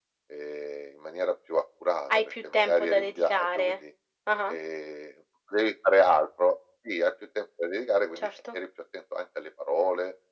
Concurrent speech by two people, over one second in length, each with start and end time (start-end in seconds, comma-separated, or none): 2.1-3.8